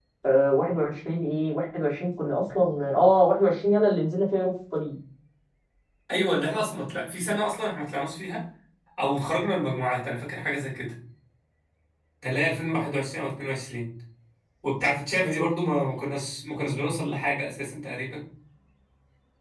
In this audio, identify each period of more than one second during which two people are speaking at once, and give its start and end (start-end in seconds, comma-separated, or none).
none